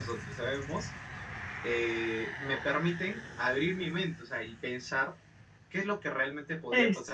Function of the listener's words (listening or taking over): listening